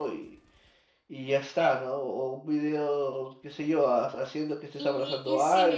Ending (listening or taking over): taking over